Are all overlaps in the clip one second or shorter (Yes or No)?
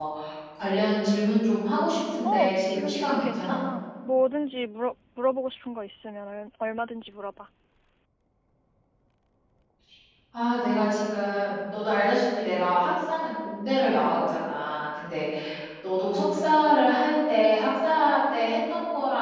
No